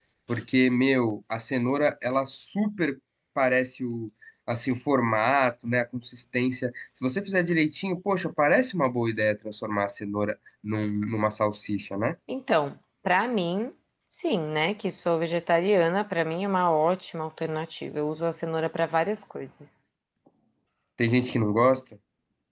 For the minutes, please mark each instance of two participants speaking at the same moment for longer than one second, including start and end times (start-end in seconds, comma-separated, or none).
none